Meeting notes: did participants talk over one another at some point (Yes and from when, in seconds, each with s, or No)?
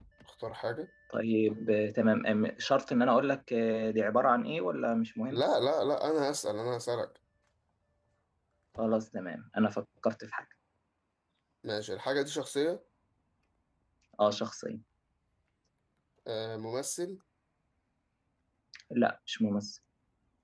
No